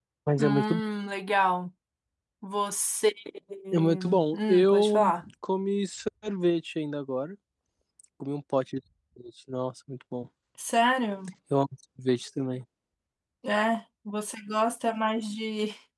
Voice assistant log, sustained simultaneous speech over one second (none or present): present